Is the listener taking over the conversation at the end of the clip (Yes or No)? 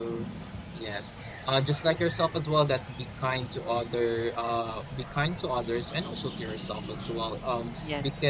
No